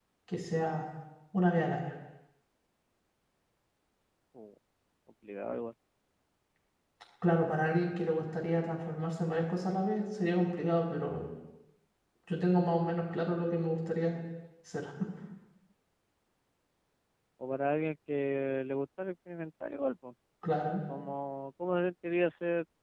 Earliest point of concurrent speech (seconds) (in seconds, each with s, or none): none